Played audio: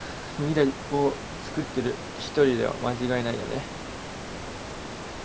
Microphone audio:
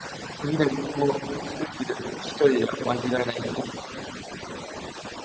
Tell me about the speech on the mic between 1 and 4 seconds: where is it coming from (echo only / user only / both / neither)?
echo only